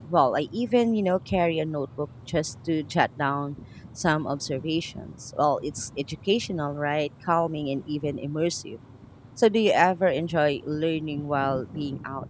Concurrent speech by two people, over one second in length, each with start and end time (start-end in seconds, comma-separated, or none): none